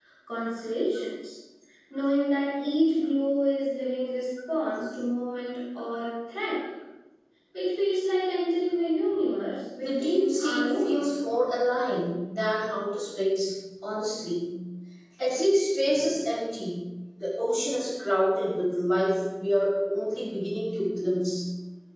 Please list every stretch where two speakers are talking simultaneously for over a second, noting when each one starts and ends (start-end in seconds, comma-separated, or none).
9.8-11.0